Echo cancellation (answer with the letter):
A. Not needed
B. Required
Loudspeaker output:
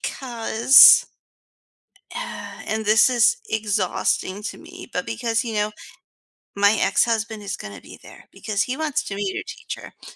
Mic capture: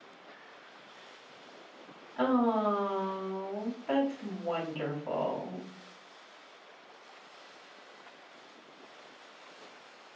A